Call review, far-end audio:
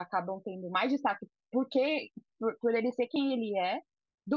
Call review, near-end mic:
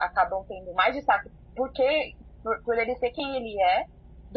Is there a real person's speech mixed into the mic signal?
No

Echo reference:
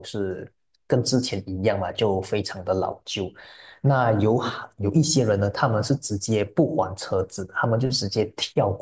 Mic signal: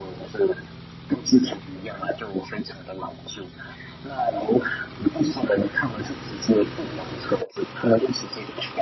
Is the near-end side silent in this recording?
Yes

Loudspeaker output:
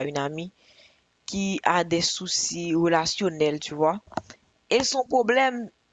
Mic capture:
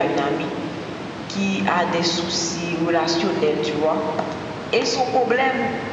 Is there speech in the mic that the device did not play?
No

